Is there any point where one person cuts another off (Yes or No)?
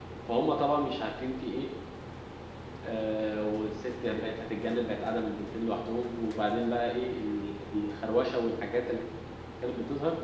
No